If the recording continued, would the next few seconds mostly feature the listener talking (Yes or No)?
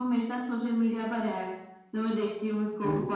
No